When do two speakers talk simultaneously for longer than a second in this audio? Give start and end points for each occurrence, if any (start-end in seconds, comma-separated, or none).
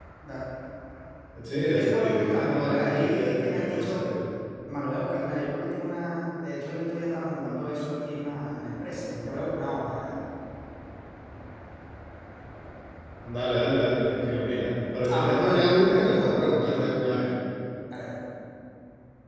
1.6-4.1, 15.1-16.8